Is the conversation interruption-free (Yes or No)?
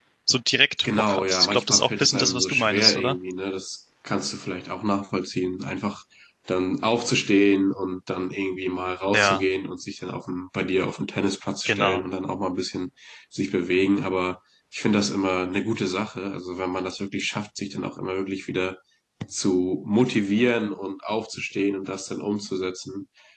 No